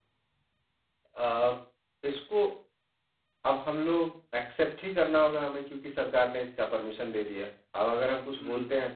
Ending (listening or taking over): listening